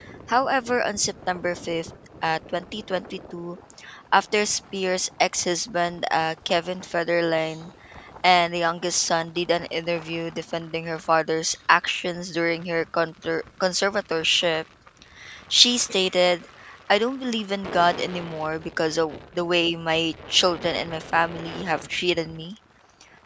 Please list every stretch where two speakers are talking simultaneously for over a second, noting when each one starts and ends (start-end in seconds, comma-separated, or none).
none